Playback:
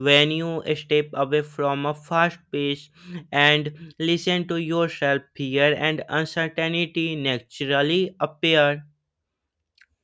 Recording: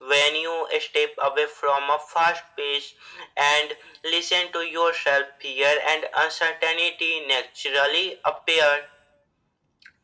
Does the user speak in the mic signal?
No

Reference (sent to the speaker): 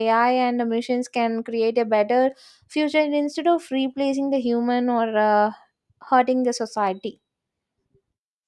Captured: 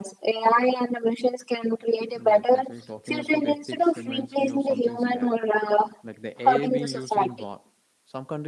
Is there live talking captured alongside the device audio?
Yes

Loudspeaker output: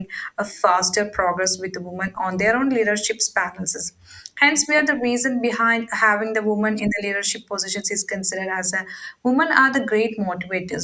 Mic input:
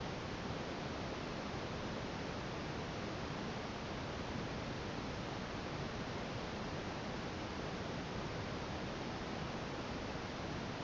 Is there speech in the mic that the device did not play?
No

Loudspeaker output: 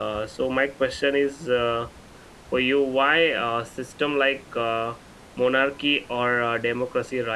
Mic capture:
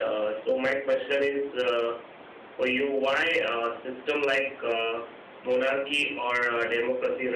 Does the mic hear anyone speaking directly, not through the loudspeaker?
No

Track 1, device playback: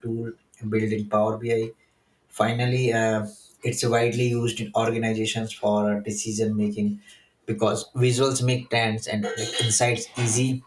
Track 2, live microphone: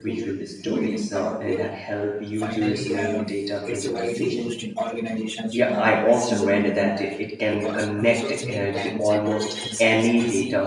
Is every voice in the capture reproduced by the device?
No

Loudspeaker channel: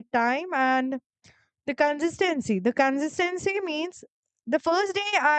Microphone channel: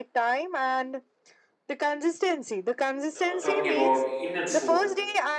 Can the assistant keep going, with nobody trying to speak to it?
No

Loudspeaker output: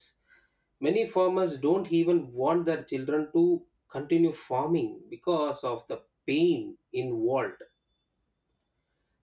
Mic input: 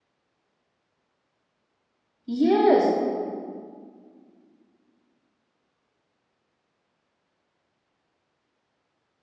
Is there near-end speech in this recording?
Yes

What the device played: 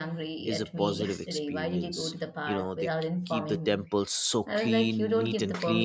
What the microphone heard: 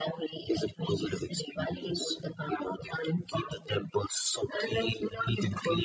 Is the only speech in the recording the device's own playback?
Yes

